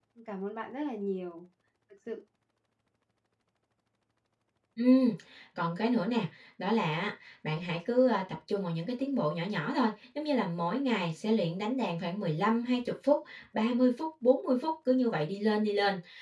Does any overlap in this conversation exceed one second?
No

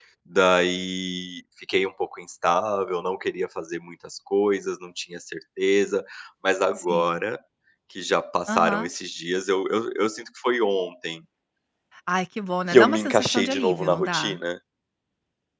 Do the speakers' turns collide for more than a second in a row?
Yes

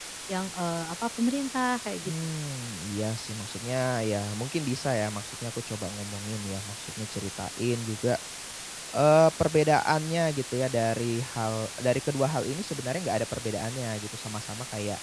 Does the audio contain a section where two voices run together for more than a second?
No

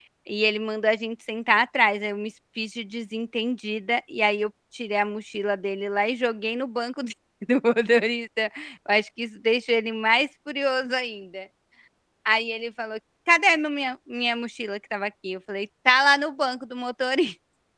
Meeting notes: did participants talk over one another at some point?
No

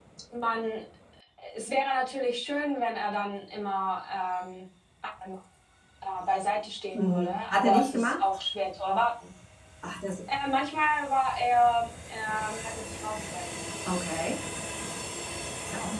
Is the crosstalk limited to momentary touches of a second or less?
No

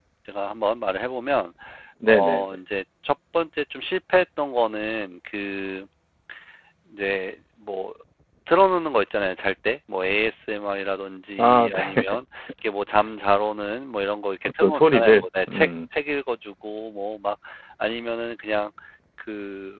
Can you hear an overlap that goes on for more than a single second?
Yes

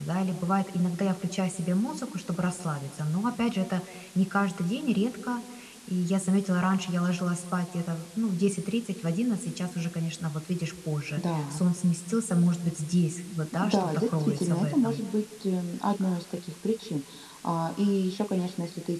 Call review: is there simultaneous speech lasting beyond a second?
Yes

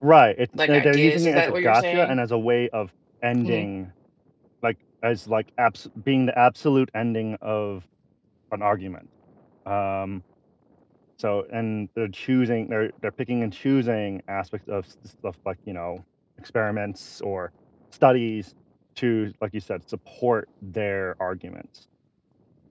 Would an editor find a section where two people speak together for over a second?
Yes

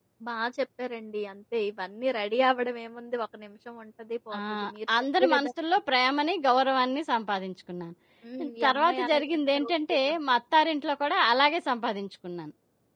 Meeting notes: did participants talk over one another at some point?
Yes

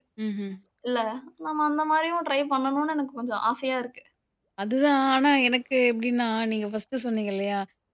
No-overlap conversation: Yes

